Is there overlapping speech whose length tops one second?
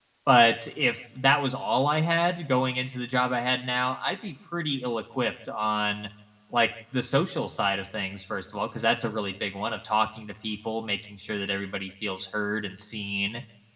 No

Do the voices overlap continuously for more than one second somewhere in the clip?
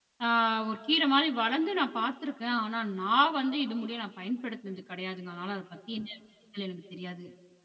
No

